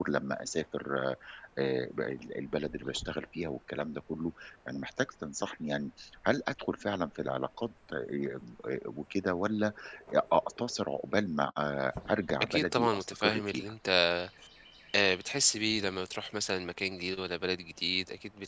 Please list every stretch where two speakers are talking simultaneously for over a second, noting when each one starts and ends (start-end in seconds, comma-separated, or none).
12.4-13.7